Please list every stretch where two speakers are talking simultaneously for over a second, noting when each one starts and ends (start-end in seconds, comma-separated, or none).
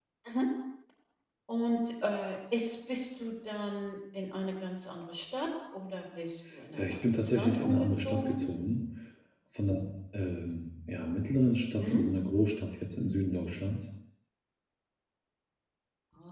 6.7-8.4